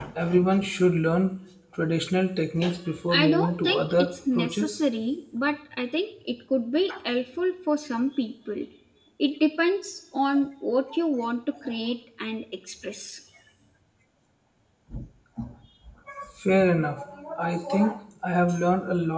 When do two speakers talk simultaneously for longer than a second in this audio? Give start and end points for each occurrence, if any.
3.1-4.8

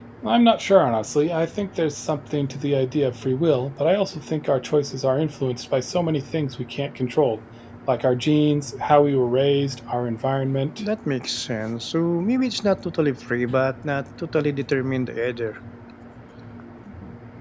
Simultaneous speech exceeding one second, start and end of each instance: none

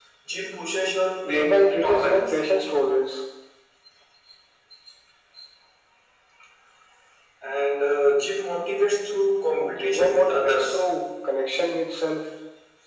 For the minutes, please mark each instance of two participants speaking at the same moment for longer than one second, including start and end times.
1.2-2.4, 9.6-10.8

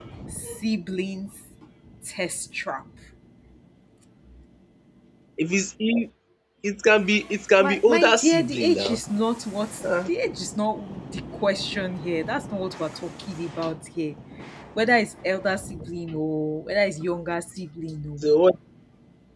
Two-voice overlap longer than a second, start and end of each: 7.6-8.9

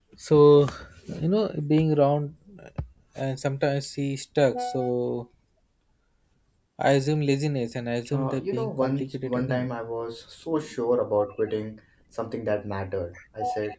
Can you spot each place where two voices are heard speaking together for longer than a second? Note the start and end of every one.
8.1-9.6

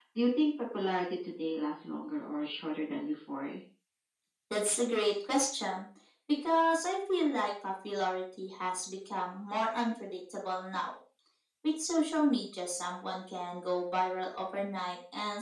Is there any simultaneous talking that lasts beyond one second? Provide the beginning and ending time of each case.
none

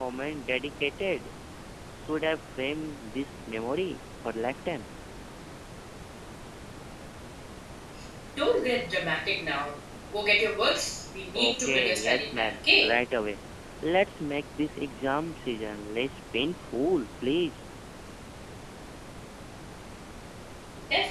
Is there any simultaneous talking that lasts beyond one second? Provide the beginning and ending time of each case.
11.3-12.9

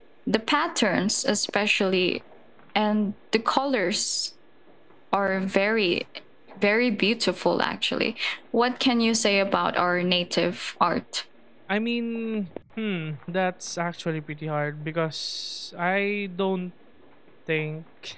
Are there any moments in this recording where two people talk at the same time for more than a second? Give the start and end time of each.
none

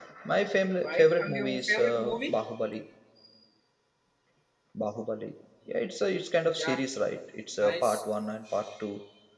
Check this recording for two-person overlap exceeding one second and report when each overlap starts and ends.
0.8-2.3

